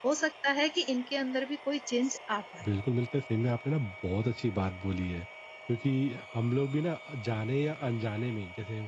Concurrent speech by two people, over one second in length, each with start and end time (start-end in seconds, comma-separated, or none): none